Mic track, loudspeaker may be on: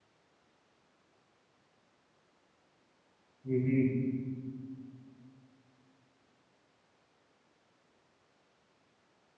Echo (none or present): none